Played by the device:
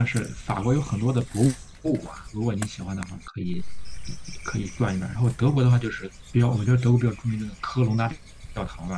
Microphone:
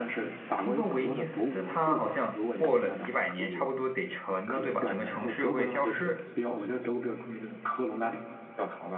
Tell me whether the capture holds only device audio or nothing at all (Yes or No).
No